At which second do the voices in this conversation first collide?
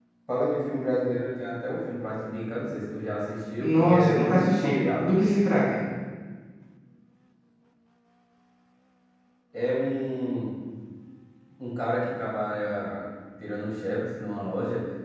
3.6 s

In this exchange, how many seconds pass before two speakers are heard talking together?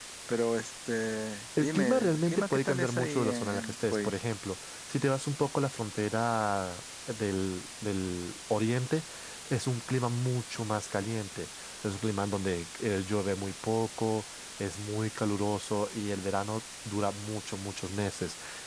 1.6 s

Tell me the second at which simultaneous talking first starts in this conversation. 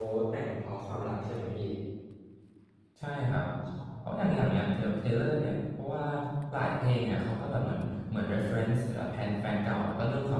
none

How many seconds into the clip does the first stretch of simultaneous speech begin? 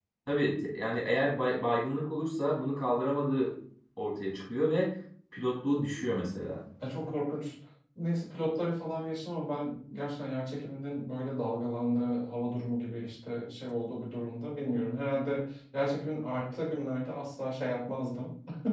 none

